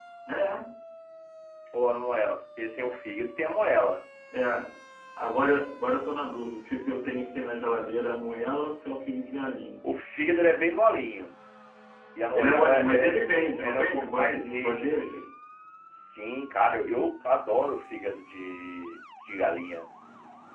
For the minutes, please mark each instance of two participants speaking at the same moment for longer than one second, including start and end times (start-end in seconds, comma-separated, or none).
12.3-15.2